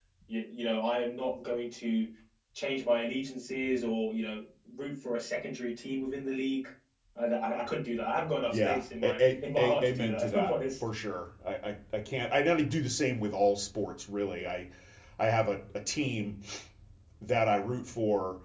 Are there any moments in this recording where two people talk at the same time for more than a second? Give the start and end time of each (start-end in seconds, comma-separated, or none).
8.5-10.8